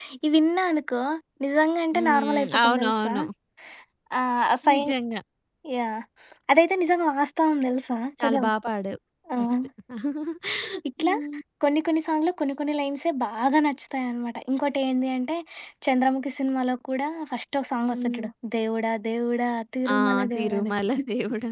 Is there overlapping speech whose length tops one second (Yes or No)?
Yes